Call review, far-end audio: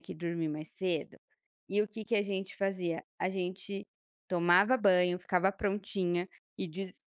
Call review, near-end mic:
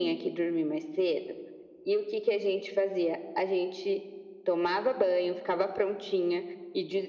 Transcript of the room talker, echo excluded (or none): none